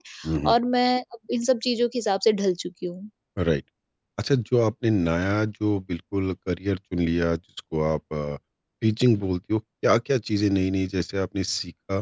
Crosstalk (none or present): none